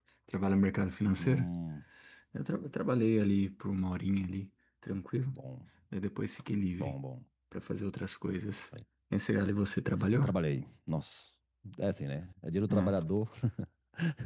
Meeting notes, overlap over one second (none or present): none